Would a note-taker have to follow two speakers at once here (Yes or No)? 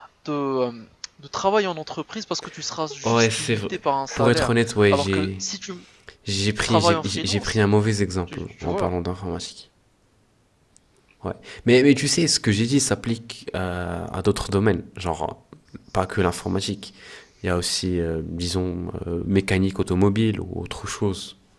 Yes